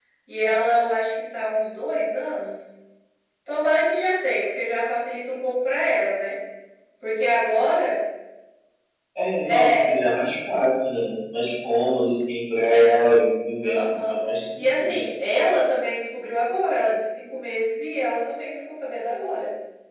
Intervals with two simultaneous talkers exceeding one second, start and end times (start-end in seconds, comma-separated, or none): none